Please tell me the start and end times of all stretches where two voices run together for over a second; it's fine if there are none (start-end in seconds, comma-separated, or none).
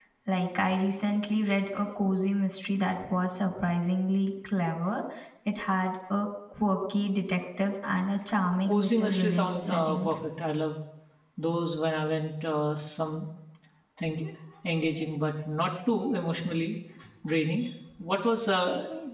8.7-10.1